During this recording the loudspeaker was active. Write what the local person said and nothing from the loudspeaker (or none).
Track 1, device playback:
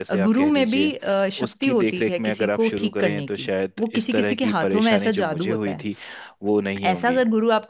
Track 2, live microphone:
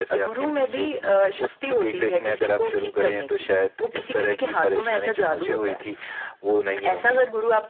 none